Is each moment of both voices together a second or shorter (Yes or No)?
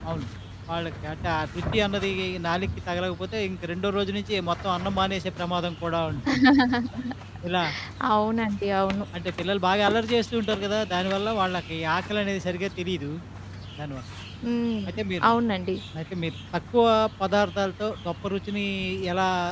Yes